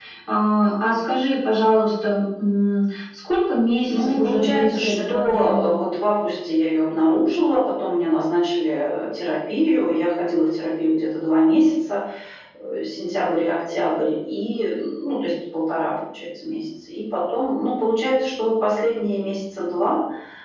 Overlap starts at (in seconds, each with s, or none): 3.9 s